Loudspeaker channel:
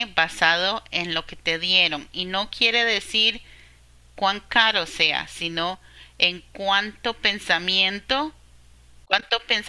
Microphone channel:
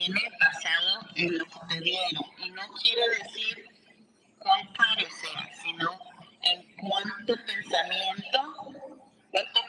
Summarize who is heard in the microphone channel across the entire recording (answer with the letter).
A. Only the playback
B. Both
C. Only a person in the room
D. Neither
A